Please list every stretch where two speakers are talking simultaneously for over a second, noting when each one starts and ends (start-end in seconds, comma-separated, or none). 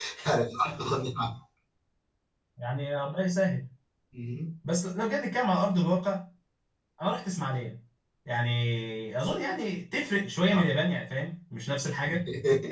none